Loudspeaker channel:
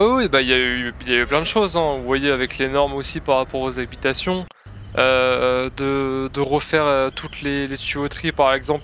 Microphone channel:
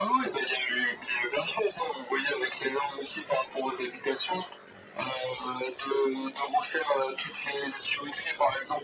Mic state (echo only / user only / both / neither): echo only